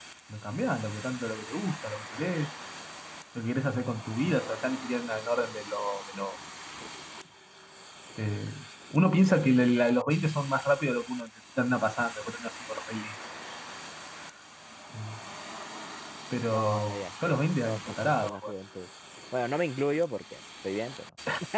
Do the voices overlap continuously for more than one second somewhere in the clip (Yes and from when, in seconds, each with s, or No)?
Yes, from 16.5 s